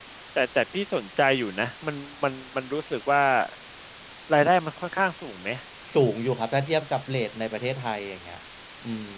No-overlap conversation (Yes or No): Yes